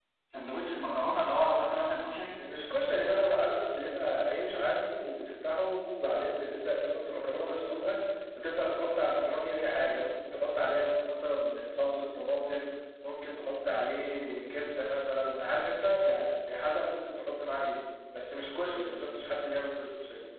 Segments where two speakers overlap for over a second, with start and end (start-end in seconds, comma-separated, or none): none